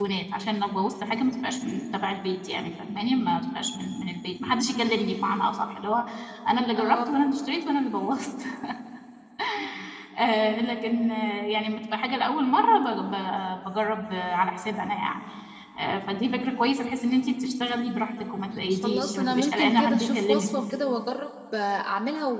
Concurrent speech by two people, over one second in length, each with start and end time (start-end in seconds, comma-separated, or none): 18.7-20.5